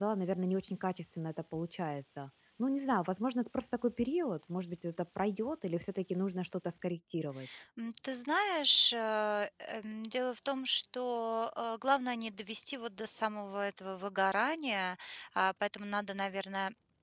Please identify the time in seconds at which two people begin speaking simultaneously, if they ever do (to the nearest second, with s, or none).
none